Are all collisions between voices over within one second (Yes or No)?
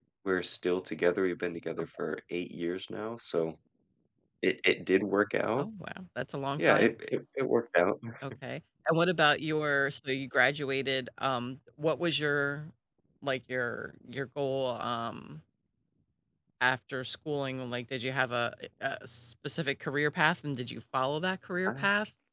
Yes